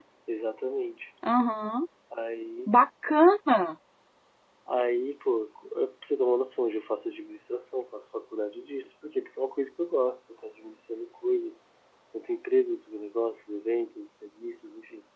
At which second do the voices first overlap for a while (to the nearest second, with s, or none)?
none